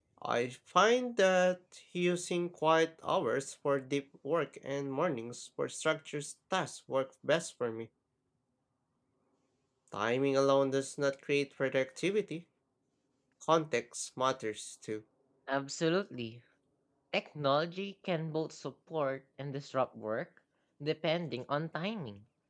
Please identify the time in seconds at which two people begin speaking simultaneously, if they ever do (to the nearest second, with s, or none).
none